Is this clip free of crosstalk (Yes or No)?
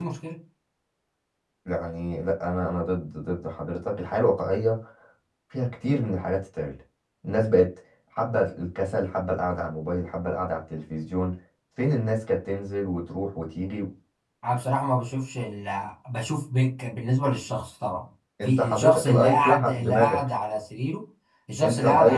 No